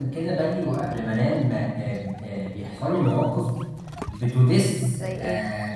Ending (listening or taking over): listening